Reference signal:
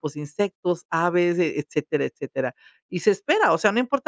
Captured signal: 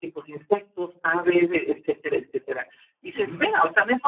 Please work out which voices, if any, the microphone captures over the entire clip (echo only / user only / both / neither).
both